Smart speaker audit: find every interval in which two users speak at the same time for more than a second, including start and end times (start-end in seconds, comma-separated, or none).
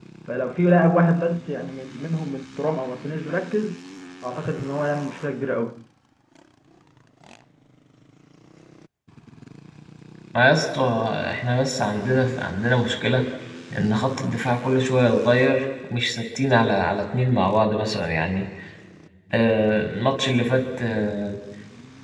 none